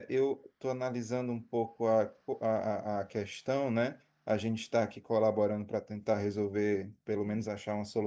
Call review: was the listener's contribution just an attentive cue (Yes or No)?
Yes